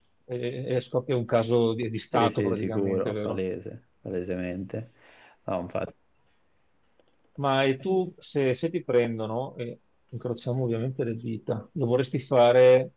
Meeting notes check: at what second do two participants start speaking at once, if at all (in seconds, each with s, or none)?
2.1 s